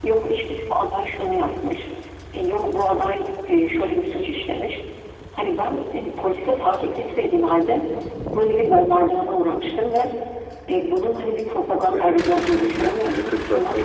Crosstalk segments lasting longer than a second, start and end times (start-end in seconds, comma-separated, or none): 11.9-13.1